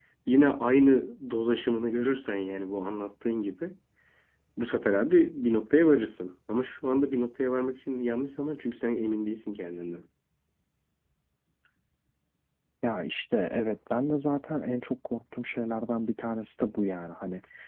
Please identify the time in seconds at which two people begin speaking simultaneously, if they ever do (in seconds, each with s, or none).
none